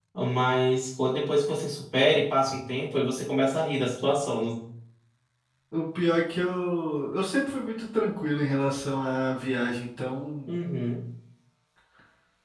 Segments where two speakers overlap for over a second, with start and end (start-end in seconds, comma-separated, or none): none